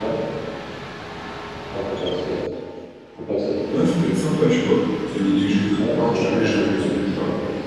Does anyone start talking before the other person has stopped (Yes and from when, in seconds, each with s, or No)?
Yes, from 5.8 s